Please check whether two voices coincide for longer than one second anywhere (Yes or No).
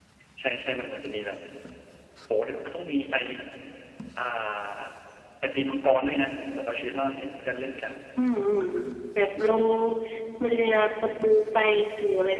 No